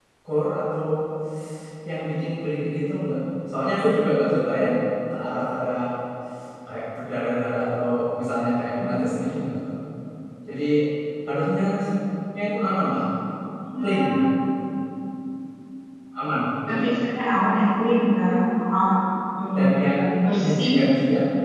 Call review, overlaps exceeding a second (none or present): none